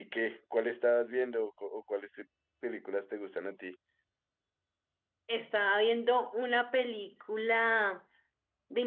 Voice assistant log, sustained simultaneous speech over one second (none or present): none